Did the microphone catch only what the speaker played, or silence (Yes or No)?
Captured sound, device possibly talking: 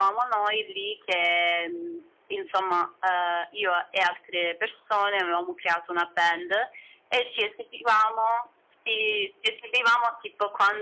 Yes